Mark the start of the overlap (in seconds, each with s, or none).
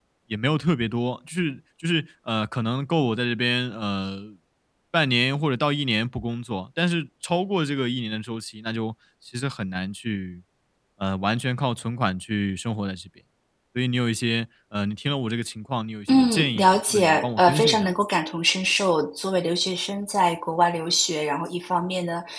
16.1 s